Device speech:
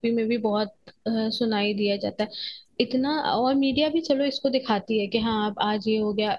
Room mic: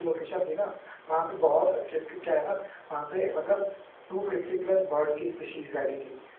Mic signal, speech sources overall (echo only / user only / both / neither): user only